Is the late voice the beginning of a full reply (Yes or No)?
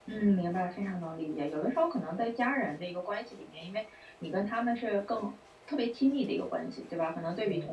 No